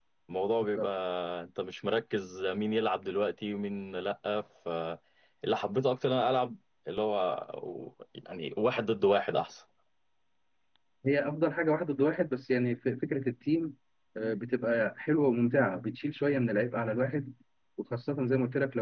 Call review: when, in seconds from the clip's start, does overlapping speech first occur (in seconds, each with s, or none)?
none